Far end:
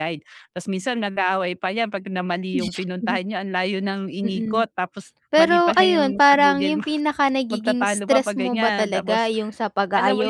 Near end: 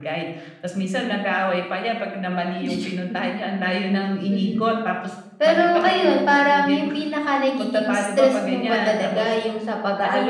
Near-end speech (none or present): none